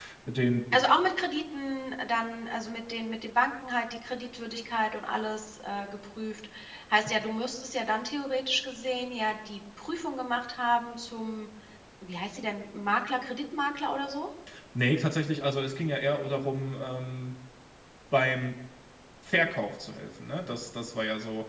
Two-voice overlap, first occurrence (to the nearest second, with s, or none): none